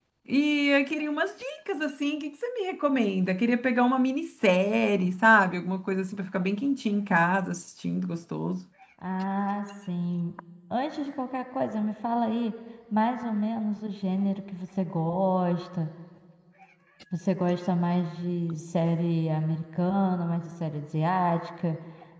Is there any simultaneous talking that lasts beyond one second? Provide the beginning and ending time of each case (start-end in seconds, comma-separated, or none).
none